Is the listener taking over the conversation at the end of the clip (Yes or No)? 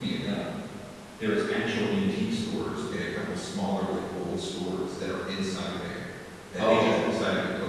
No